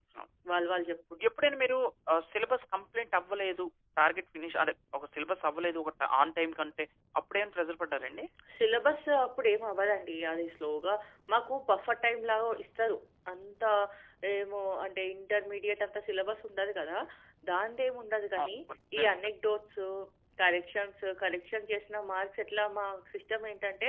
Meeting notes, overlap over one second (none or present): none